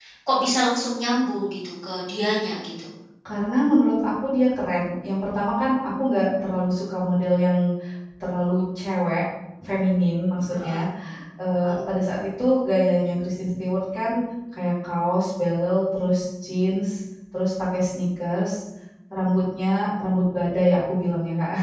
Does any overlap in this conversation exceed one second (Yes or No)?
No